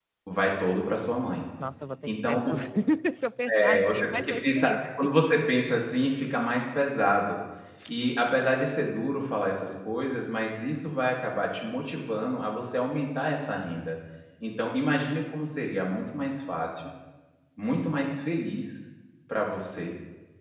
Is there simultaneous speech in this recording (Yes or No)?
Yes